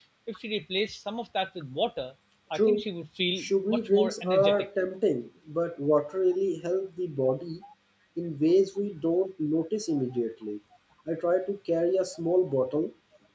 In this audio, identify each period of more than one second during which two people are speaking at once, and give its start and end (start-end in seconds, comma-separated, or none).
3.4-4.7